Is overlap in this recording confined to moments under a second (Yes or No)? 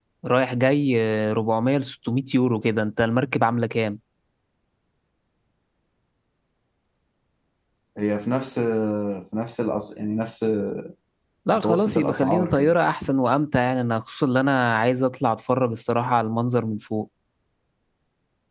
No